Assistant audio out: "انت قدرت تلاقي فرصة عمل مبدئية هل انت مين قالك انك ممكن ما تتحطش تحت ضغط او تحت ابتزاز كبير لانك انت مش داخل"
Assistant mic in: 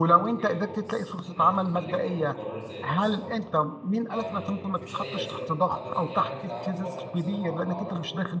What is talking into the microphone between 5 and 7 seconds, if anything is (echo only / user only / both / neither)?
both